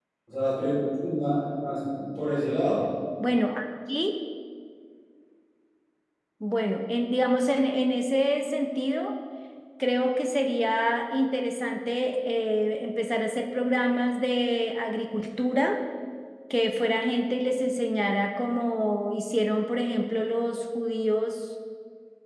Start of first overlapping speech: none

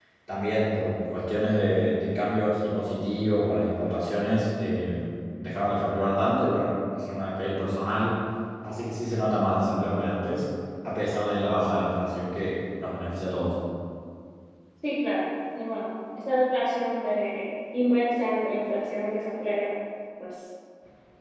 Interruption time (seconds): none

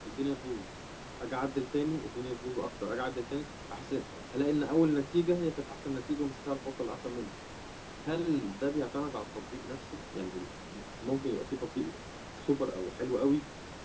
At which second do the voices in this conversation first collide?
none

